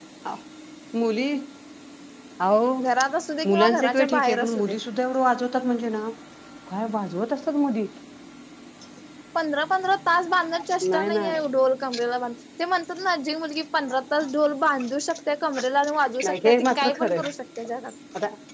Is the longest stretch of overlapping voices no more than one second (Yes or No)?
No